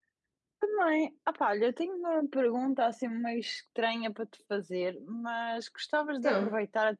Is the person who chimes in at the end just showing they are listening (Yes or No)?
Yes